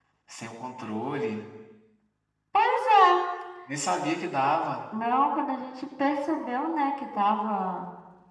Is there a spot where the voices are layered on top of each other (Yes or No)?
No